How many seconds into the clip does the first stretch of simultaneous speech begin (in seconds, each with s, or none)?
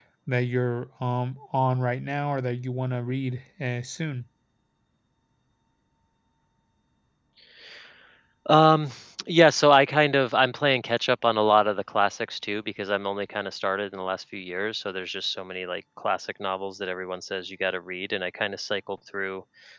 none